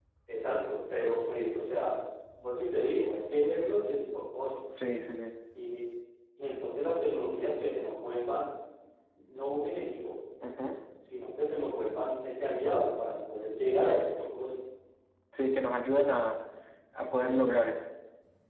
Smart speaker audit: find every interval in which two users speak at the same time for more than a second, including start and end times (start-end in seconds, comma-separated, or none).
none